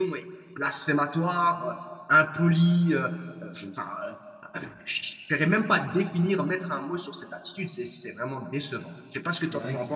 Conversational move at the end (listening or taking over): taking over